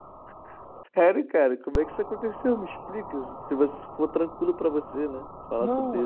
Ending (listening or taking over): taking over